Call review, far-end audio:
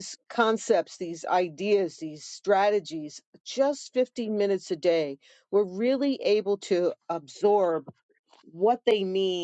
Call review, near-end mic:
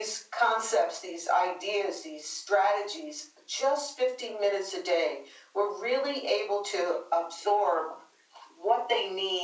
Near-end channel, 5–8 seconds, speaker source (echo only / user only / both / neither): echo only